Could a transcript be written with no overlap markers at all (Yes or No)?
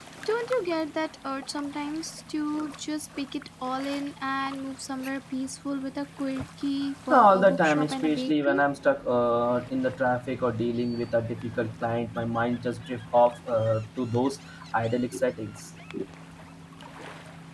No